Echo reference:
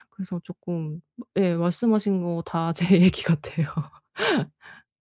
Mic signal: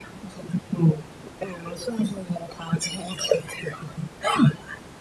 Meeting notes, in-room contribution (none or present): none